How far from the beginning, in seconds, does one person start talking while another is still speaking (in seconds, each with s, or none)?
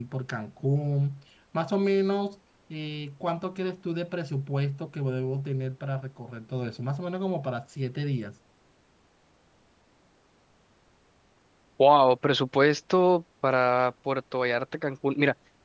none